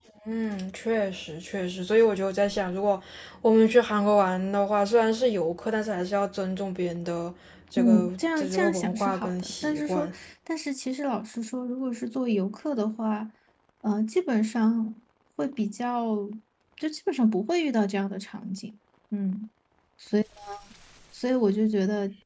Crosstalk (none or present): present